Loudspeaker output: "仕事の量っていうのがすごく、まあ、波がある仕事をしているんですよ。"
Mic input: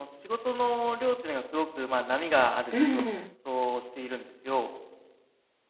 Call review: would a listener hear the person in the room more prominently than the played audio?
Yes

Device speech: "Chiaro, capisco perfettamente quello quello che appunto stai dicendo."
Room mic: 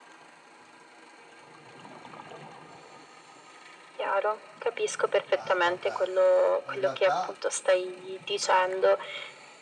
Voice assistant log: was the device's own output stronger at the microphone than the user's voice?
Yes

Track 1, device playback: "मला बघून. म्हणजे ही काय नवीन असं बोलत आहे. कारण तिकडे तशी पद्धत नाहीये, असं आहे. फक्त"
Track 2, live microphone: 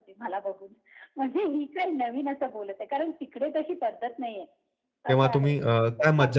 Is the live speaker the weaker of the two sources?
No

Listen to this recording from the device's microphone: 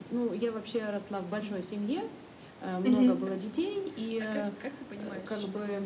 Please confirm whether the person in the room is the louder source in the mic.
Yes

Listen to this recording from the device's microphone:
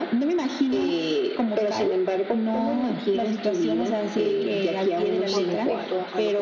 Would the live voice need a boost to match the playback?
Yes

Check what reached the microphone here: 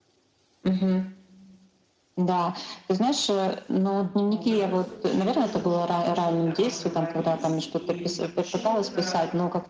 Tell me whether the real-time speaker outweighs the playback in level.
No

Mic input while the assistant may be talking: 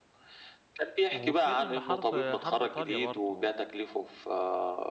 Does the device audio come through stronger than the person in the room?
Yes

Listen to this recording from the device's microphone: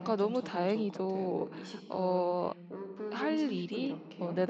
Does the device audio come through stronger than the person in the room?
No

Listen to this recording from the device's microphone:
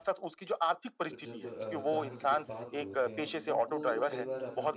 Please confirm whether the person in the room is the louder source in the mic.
No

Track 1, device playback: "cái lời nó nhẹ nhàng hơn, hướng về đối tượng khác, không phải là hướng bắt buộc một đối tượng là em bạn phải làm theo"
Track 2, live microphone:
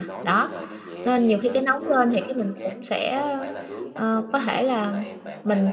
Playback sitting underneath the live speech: Yes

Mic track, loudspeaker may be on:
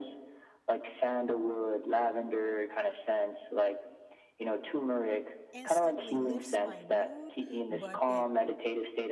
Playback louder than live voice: Yes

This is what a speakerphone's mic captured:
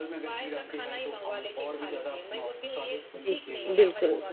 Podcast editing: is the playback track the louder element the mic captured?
No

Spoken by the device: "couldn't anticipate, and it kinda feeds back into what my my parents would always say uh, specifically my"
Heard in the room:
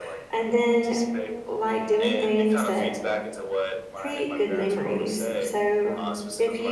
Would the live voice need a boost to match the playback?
No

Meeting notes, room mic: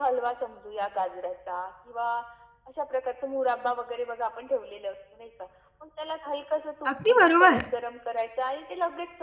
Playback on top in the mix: No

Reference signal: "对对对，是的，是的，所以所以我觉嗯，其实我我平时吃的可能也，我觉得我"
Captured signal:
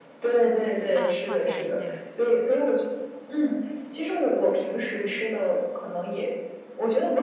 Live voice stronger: No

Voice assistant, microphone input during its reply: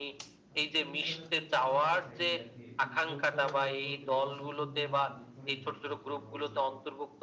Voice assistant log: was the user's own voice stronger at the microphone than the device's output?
No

